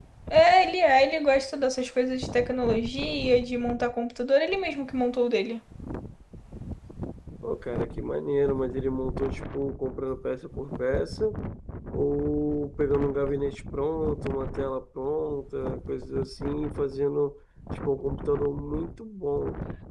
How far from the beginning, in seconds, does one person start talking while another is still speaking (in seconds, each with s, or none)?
none